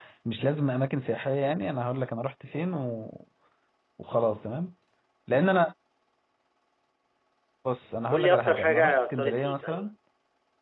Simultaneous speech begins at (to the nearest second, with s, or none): 8 s